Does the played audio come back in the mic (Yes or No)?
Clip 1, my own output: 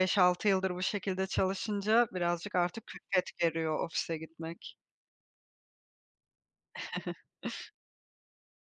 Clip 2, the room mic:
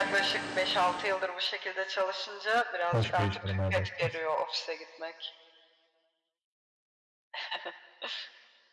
Yes